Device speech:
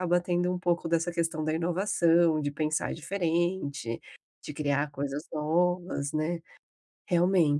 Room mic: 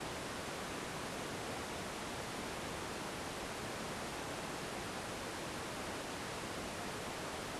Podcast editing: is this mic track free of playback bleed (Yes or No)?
Yes